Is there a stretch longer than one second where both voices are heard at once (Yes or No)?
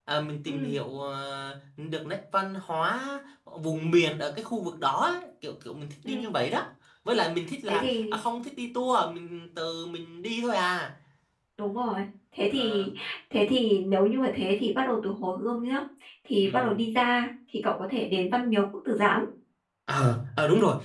No